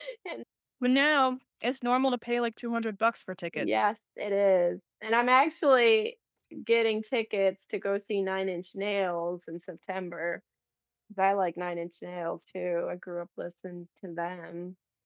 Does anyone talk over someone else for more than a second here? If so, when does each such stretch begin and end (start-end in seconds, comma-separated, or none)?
none